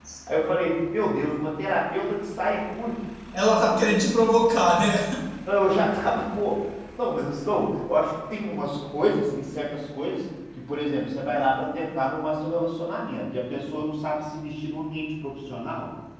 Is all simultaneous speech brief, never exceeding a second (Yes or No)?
Yes